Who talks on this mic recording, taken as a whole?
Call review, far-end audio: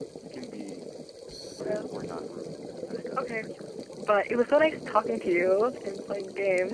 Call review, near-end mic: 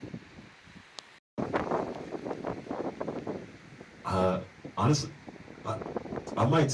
user only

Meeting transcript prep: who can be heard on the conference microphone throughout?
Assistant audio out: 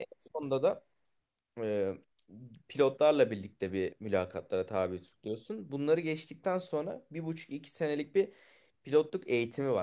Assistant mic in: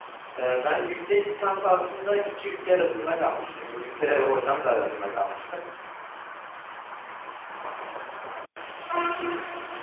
user only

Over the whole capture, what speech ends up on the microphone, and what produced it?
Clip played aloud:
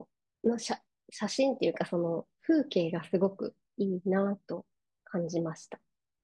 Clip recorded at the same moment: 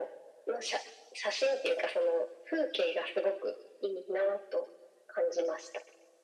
echo only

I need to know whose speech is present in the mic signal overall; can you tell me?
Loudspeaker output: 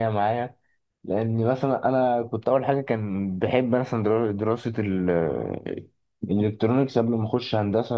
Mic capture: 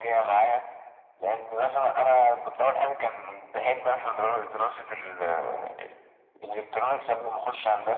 echo only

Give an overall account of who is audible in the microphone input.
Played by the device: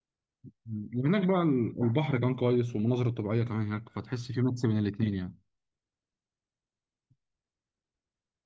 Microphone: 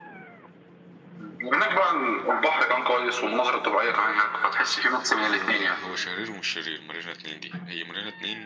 both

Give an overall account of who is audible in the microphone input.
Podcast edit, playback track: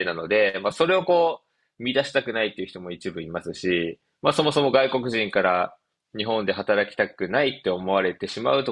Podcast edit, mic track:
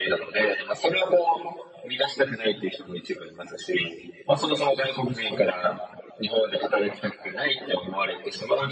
echo only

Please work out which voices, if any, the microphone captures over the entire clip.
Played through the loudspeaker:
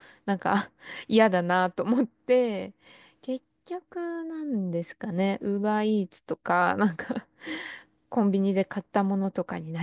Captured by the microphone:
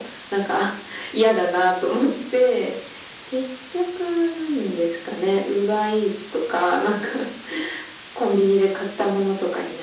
echo only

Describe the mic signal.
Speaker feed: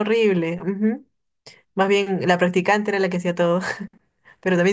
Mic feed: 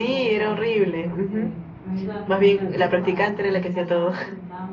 both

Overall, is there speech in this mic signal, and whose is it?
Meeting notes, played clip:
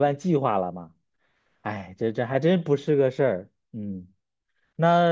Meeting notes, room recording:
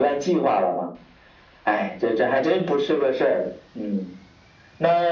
echo only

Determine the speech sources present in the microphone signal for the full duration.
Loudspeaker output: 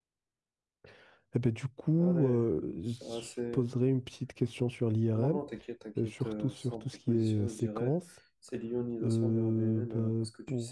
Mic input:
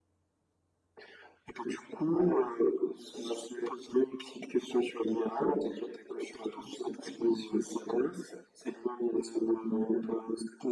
echo only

